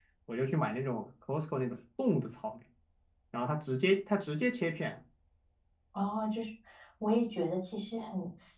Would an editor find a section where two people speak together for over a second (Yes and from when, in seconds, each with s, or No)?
No